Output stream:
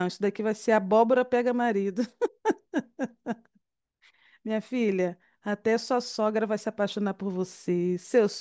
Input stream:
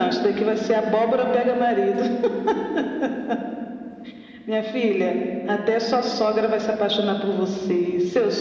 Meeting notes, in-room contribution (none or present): none